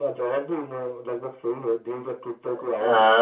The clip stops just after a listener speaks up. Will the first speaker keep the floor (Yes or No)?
No